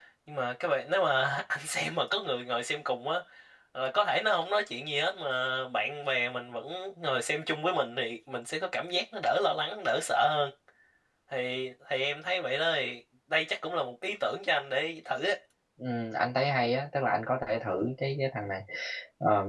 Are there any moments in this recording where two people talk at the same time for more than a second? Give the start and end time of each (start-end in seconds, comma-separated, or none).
none